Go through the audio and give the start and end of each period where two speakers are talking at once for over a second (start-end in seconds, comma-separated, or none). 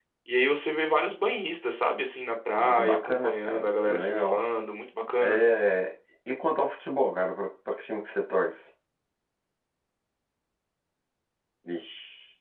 2.8-4.4